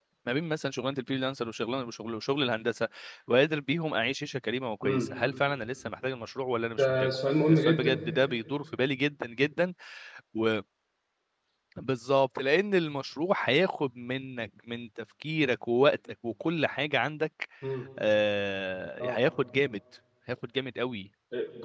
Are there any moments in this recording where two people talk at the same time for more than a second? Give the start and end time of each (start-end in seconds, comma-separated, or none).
none